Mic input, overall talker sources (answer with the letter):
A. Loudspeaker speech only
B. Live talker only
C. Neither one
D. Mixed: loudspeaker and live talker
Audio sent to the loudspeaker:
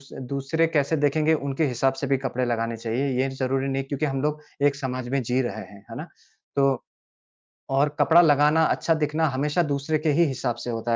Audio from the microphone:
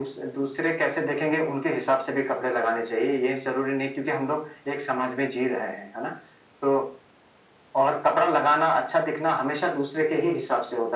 A